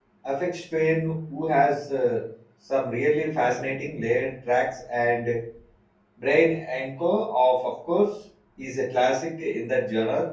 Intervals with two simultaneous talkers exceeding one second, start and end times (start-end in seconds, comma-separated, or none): none